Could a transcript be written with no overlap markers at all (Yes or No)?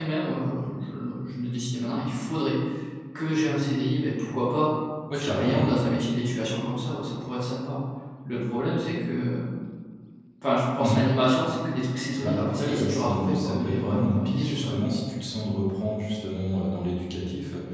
No